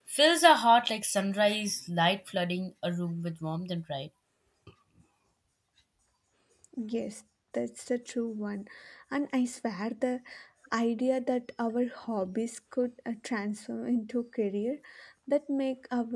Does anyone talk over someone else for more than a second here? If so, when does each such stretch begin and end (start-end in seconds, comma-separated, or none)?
none